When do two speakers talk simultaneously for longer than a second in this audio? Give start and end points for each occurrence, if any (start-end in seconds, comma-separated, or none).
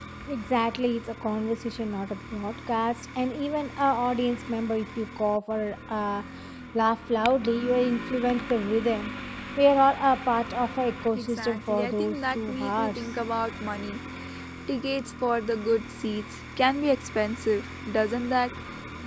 11.2-13.1